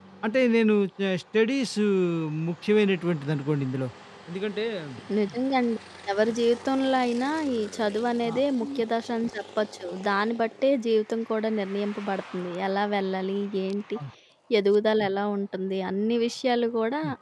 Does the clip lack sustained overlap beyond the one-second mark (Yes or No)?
Yes